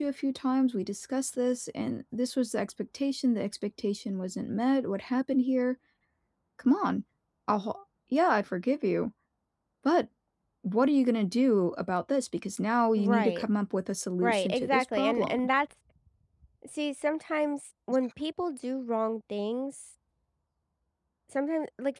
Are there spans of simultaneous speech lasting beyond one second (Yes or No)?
Yes